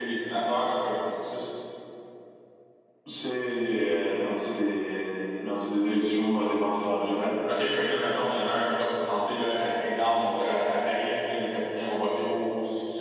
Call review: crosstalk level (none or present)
none